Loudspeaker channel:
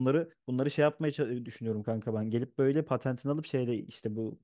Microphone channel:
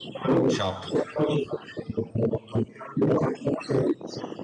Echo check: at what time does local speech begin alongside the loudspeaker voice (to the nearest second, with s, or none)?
0 s